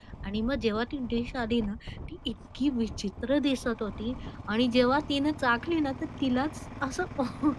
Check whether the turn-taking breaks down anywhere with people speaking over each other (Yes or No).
No